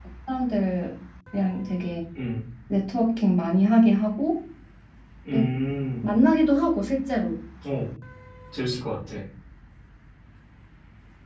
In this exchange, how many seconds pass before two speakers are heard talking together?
none

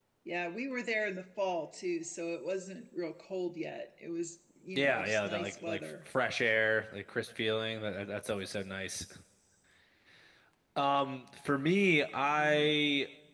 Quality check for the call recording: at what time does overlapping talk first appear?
5 s

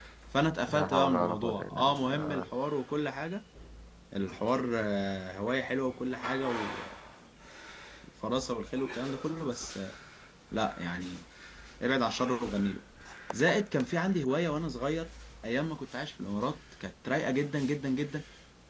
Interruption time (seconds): 1 s

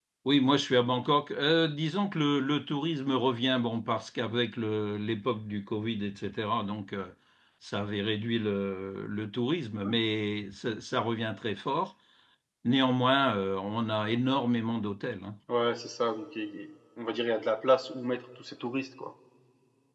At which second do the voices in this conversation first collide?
none

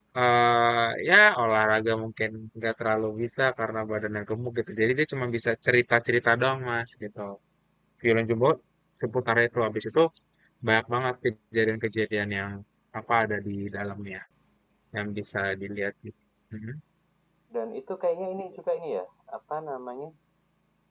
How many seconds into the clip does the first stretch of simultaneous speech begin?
none

